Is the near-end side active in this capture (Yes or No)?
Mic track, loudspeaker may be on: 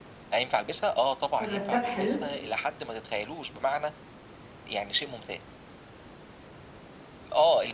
Yes